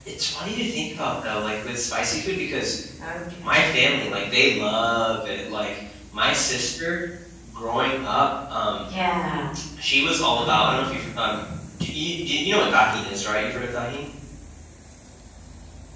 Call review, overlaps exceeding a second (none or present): none